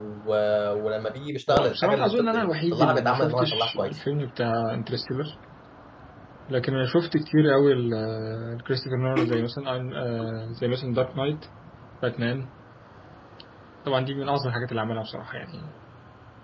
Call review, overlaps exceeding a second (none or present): present